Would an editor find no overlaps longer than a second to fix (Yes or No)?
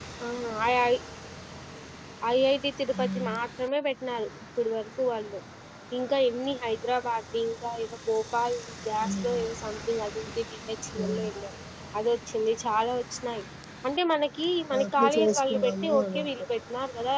No